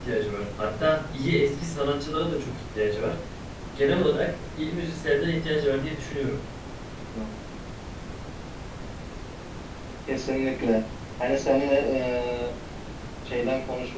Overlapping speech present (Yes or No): No